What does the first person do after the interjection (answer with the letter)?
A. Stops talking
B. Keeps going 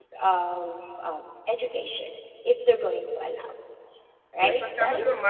A